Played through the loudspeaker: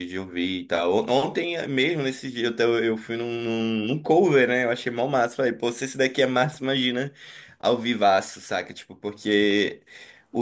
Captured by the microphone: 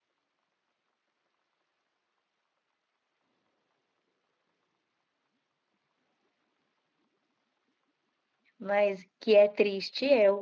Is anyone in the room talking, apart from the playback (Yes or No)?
Yes